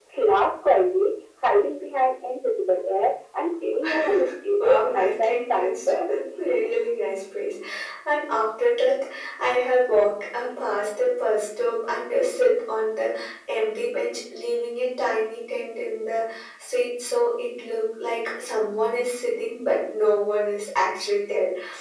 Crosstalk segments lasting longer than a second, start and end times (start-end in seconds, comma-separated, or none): 4.6-6.0